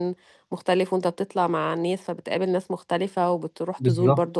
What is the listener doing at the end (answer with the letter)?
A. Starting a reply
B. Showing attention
B